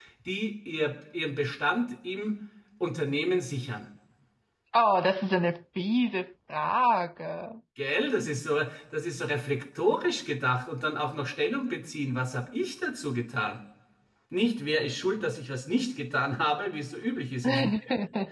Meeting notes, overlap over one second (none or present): none